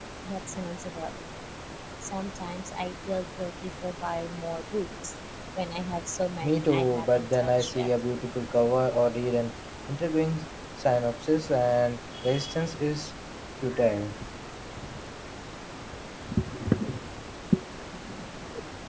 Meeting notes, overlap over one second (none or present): present